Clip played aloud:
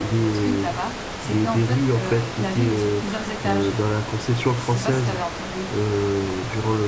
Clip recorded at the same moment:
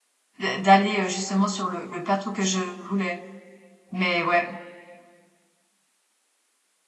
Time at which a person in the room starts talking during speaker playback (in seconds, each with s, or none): 0.4 s